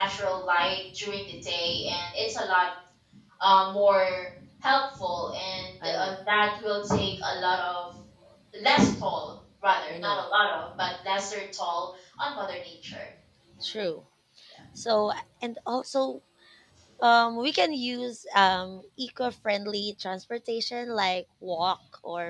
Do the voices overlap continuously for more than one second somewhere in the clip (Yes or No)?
No